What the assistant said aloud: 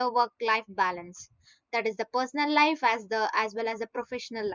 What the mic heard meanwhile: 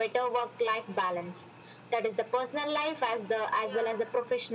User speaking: Yes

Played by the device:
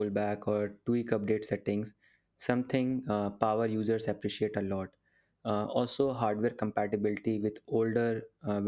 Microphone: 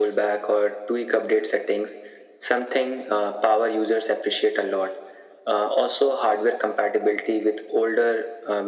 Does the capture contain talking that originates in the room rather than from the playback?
No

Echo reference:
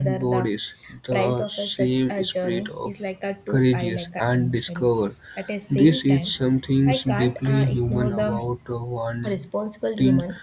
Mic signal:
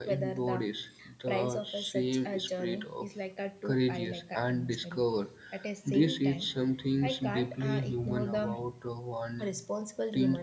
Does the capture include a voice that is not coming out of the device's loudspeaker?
No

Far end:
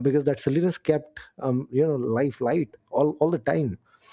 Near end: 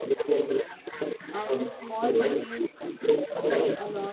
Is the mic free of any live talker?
No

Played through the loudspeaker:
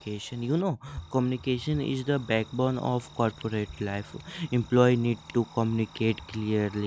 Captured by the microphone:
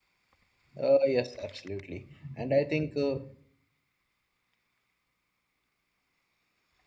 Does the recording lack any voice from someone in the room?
No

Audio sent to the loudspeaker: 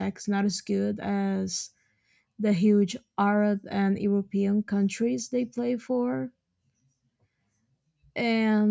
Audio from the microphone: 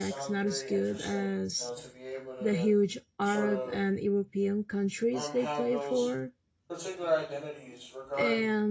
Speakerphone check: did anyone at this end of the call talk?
Yes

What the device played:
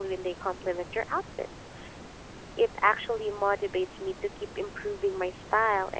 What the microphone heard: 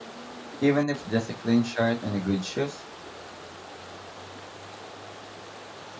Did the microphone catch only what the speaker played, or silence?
No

